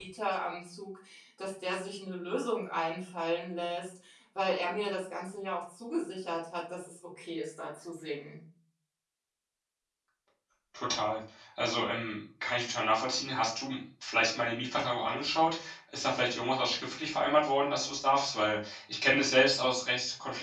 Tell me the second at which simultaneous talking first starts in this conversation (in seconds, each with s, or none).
none